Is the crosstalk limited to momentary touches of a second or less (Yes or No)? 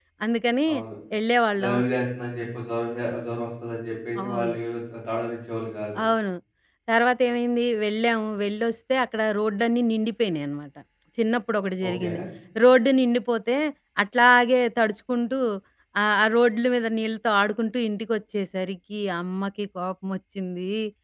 Yes